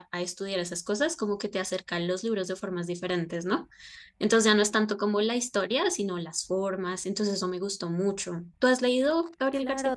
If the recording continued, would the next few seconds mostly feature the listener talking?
Yes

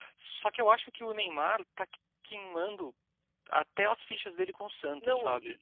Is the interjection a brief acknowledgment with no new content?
No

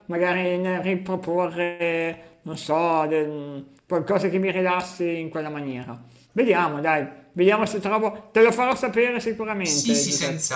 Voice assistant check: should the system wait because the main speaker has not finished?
No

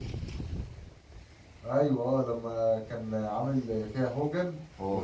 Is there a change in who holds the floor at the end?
No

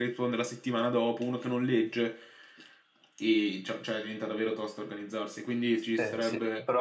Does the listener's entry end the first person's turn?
Yes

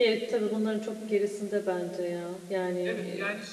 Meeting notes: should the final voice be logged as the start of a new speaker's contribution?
Yes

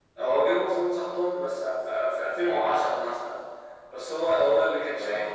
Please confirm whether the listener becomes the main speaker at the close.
No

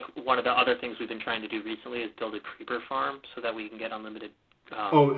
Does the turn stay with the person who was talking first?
No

